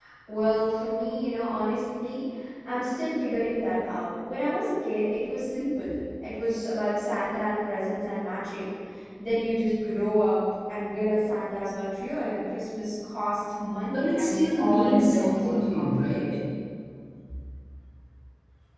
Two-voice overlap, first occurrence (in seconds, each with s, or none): 13.9 s